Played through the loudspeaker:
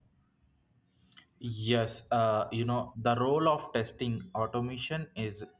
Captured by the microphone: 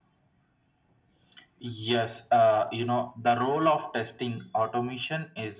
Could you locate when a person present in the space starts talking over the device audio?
none

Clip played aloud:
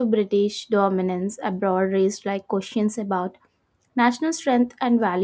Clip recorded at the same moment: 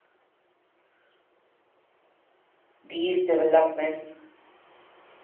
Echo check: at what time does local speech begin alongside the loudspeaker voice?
3 s

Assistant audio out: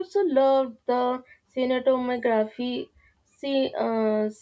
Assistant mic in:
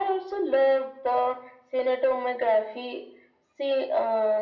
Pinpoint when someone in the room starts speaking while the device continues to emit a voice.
none

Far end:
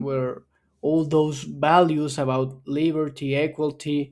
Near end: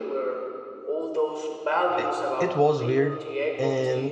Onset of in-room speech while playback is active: 2 s

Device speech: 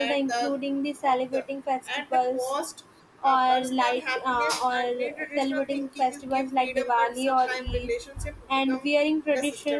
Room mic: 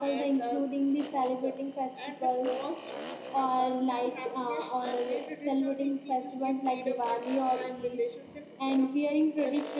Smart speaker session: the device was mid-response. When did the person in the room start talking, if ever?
none

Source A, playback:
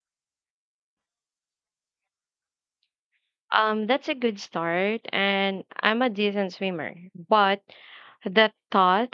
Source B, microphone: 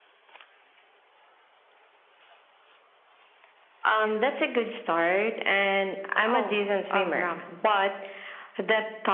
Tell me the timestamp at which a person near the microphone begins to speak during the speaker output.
6 s

